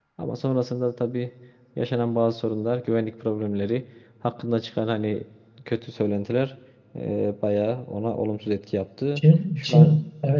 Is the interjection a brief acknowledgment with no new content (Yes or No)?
No